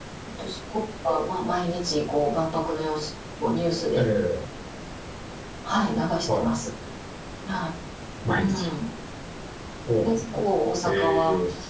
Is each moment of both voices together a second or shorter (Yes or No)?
Yes